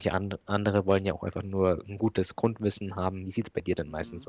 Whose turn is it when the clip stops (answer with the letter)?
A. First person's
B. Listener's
B